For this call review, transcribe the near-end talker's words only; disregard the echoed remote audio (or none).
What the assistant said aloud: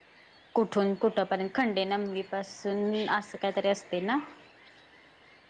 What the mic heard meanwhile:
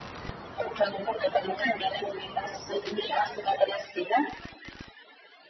none